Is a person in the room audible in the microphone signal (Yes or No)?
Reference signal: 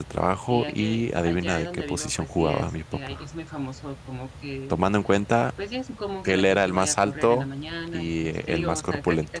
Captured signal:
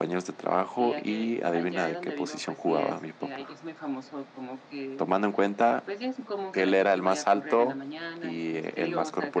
No